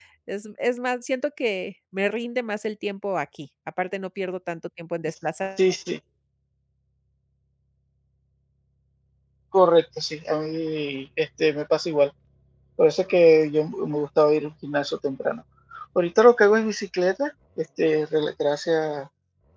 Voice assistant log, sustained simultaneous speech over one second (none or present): none